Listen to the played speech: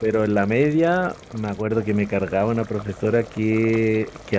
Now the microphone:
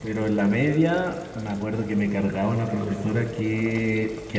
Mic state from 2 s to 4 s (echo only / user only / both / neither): echo only